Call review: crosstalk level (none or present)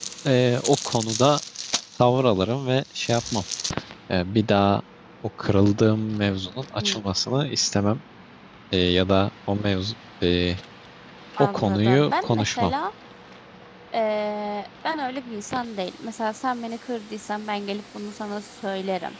present